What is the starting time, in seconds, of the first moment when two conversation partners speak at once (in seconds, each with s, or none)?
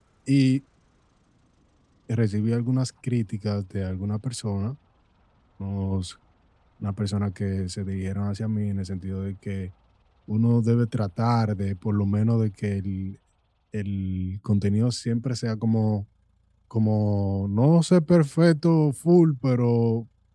none